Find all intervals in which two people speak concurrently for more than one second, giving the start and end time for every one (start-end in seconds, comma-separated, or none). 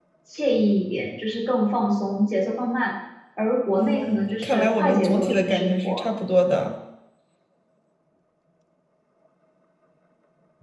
3.8-6.0